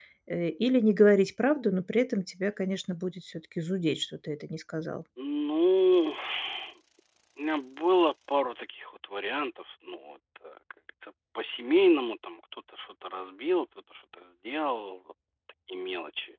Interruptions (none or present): none